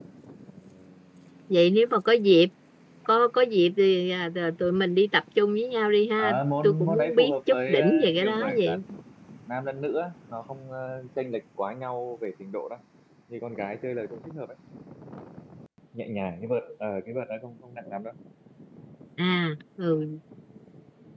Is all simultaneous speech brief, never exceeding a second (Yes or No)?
No